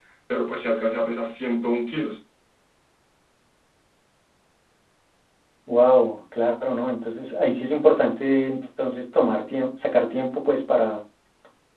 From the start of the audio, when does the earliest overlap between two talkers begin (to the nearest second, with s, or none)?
none